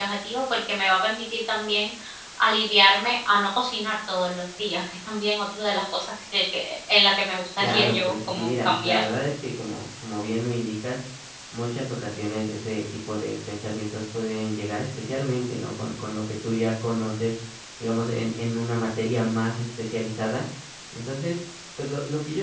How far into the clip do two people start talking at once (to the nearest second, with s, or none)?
8 s